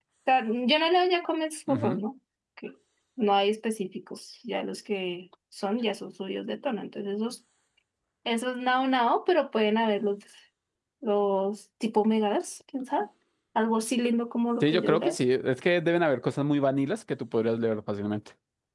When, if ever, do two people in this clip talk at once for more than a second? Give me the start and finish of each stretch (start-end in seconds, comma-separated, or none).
none